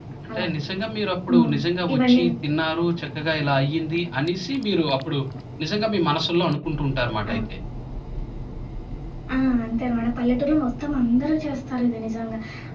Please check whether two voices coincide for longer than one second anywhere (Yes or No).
No